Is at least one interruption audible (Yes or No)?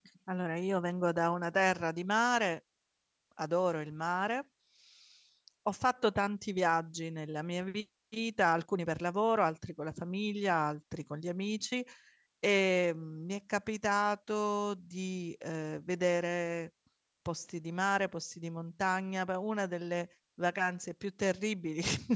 No